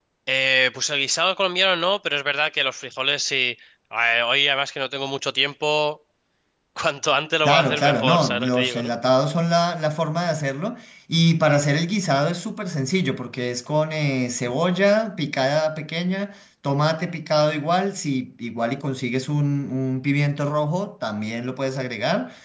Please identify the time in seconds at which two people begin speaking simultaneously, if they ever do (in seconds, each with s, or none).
7.4 s